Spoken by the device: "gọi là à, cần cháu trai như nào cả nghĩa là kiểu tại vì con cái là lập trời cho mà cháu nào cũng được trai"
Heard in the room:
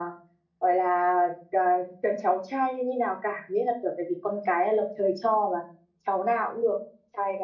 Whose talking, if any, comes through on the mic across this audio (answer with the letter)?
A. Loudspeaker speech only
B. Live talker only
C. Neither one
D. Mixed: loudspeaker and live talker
A